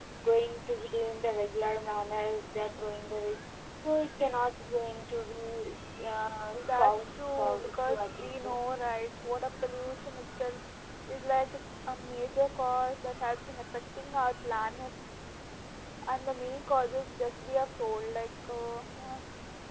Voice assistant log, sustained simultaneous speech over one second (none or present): present